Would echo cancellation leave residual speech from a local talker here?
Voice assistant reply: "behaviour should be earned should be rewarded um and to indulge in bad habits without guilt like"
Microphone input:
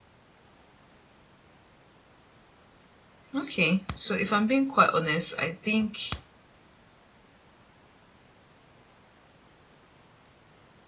Yes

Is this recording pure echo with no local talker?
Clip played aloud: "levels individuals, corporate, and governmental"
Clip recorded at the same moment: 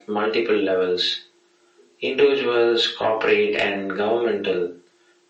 Yes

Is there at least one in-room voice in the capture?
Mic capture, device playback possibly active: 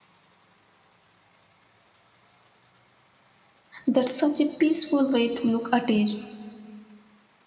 Yes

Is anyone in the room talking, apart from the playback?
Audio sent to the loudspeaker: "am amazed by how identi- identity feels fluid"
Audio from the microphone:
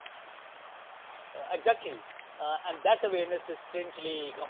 Yes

